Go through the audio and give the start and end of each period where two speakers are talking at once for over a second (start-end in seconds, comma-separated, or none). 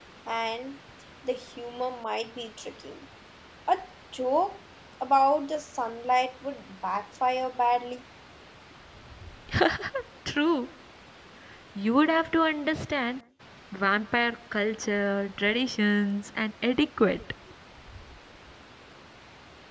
none